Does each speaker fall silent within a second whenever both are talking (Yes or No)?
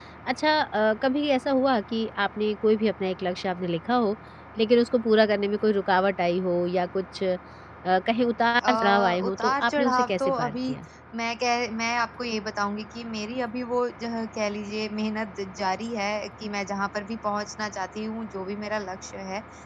No